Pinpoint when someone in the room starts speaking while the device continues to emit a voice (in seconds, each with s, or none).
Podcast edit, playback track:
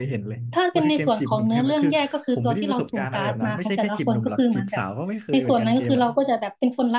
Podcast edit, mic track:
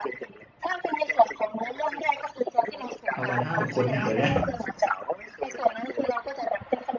3.1 s